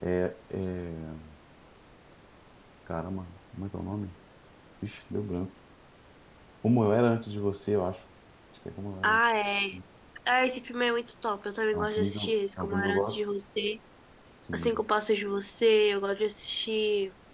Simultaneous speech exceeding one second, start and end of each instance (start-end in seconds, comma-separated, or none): 11.7-13.2